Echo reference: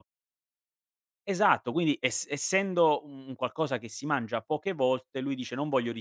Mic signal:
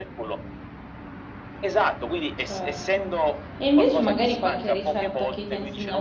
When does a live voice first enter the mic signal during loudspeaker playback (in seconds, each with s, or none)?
2.3 s